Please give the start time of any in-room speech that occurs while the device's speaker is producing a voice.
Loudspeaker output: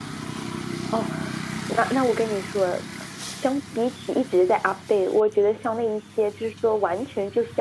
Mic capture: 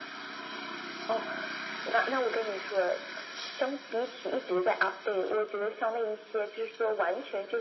none

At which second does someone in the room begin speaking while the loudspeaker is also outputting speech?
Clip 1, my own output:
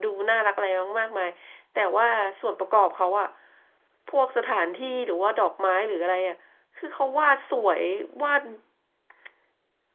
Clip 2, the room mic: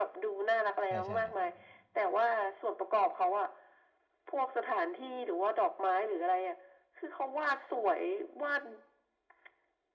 0.8 s

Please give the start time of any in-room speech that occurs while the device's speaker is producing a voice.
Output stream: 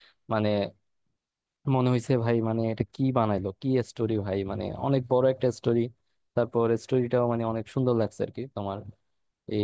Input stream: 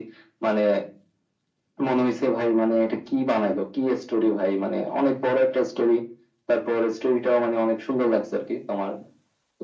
none

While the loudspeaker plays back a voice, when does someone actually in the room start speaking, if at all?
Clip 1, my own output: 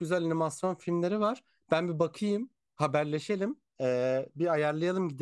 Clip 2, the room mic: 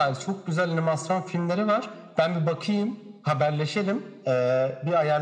none

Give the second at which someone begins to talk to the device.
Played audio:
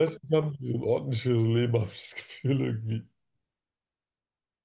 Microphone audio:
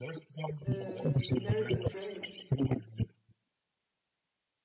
0.6 s

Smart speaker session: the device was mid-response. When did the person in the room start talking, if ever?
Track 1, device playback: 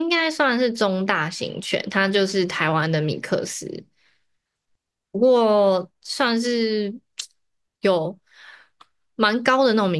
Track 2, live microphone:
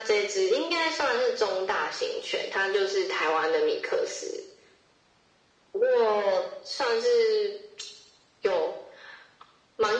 none

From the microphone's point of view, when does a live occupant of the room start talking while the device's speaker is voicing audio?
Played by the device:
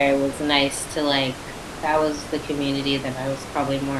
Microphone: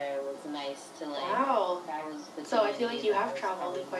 1.1 s

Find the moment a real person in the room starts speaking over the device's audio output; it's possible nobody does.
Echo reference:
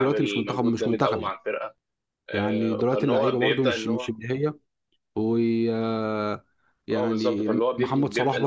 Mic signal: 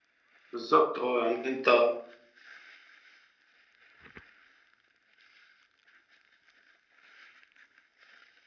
0.5 s

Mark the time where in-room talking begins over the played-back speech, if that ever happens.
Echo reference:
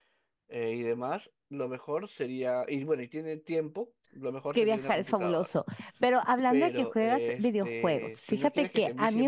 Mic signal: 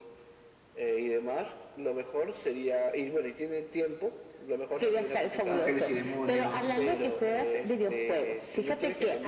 5.5 s

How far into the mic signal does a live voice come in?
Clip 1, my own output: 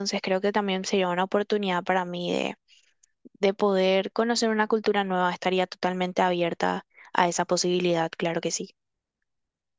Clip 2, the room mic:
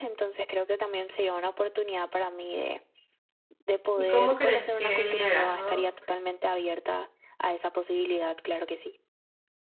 3.9 s

